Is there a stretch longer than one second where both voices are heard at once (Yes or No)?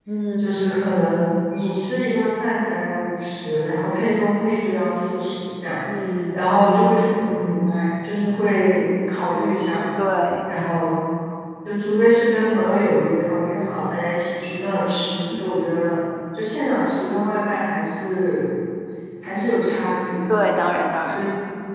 No